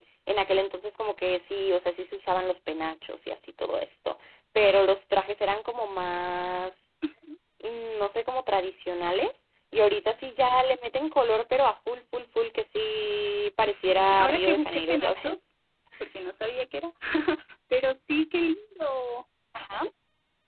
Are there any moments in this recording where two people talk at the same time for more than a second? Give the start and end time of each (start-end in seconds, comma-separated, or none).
13.7-15.3